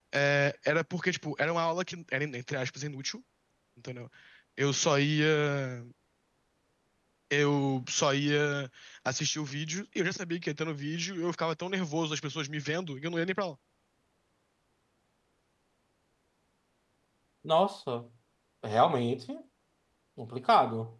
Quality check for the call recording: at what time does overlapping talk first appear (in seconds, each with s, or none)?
none